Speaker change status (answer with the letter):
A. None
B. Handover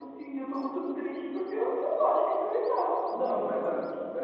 B